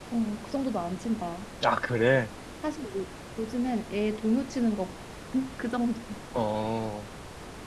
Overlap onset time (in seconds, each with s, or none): none